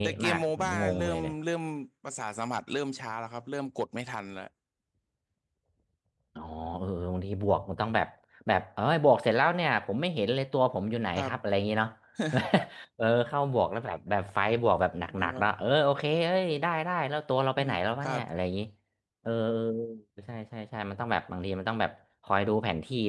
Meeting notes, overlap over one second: present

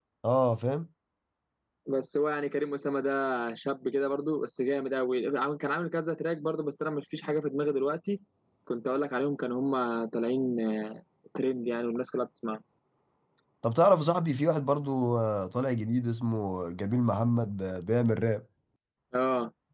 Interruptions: none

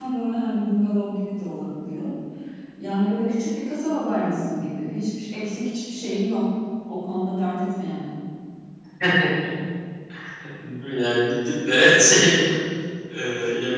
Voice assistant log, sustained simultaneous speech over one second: none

